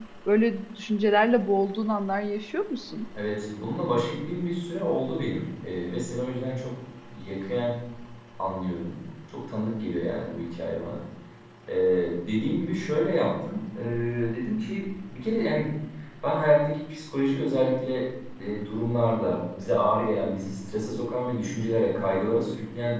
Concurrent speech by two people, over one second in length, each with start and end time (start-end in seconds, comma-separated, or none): none